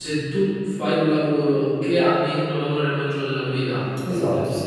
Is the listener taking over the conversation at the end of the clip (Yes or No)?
Yes